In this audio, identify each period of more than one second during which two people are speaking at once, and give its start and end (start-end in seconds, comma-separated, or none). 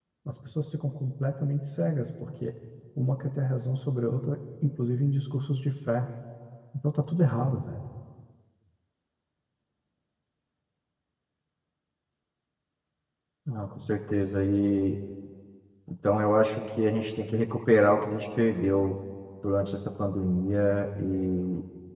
none